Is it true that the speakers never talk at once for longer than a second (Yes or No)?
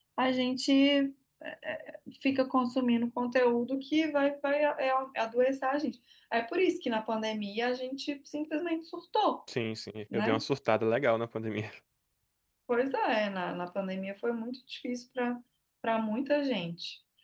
Yes